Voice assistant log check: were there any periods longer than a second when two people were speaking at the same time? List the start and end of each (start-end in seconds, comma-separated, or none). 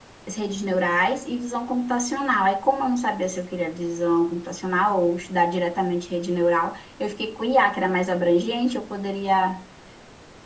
none